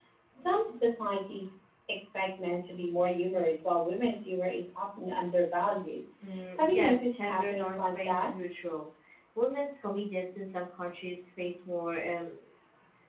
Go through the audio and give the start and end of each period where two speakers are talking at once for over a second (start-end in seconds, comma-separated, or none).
6.6-8.3